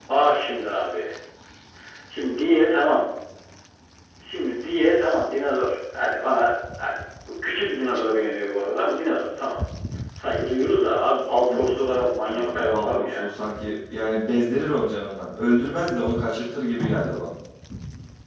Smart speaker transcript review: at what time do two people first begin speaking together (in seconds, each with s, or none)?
11.4 s